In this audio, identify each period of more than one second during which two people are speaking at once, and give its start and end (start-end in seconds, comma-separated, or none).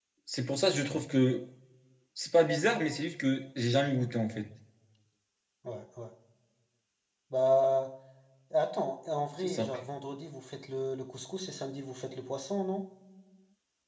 none